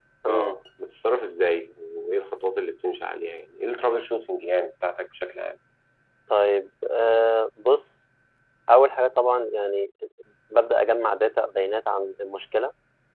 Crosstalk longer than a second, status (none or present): none